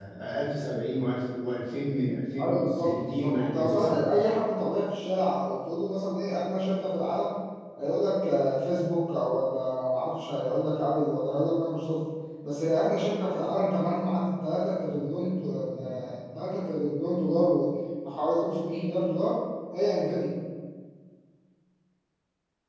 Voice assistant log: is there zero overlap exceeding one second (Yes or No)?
No